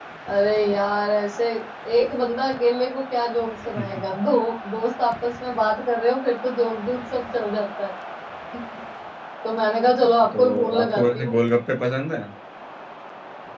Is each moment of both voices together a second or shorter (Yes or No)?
No